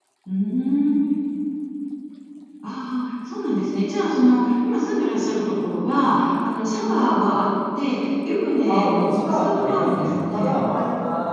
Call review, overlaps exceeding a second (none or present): present